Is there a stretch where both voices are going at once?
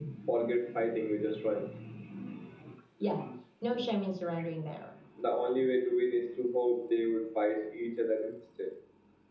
No

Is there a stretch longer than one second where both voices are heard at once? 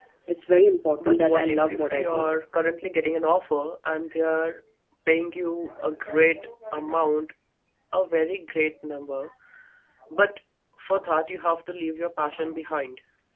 Yes, from 1.0 s

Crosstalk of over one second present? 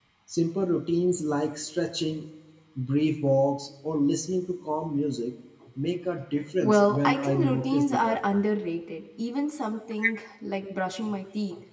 Yes, from 6.6 s

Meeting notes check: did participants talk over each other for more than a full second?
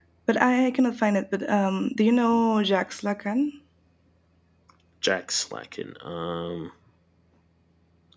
No

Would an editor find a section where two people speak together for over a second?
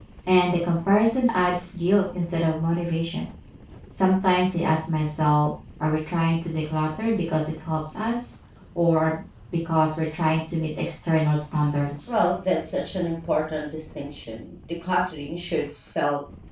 No

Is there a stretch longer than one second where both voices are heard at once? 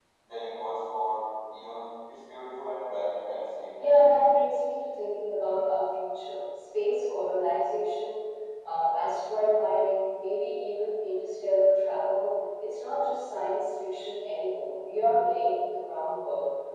No

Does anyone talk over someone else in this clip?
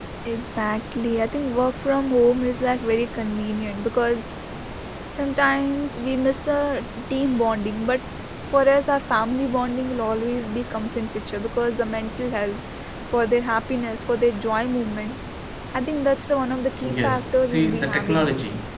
Yes, from 16.8 s

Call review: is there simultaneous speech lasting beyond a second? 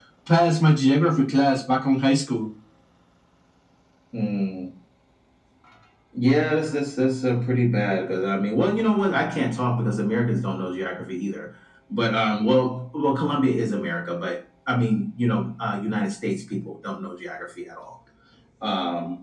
No

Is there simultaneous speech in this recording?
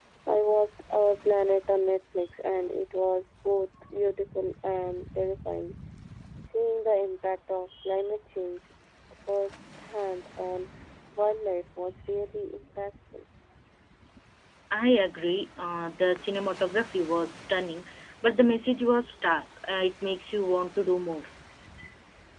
No

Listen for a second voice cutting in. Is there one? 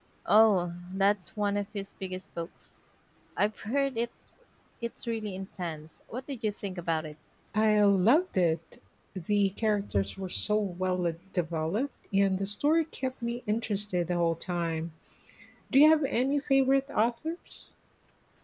No

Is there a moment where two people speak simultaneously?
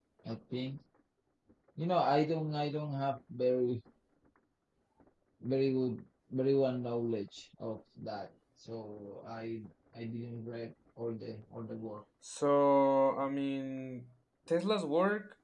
No

